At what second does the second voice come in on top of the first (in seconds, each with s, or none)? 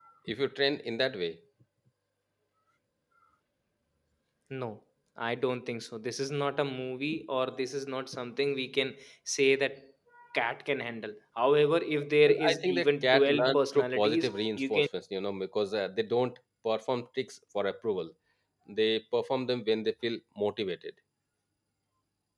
12.2 s